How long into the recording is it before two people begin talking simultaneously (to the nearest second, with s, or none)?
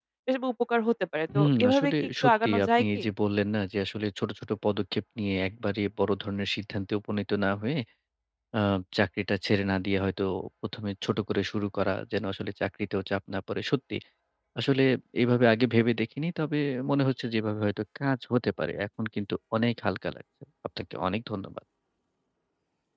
1 s